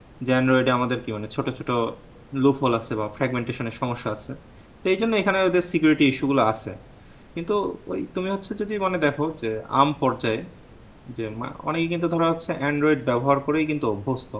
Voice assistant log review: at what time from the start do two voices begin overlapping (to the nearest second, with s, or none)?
none